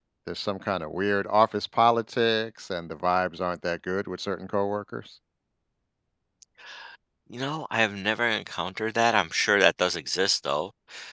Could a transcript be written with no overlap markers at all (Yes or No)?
Yes